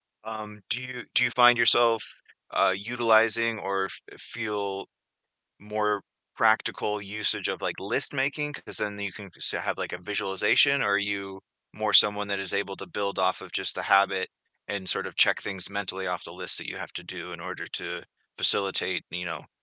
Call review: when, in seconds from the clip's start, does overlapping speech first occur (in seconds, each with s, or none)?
none